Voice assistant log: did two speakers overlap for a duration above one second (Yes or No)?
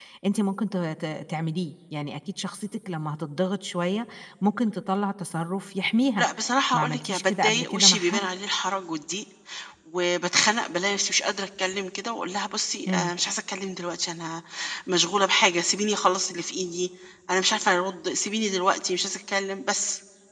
Yes